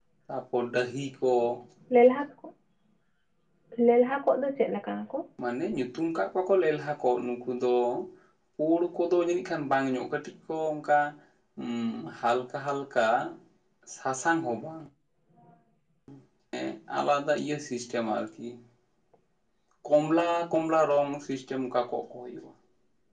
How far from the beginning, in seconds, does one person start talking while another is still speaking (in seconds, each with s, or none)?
none